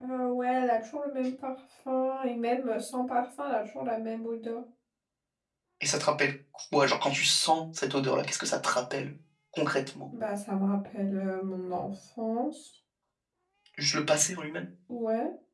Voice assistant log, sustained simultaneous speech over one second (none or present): none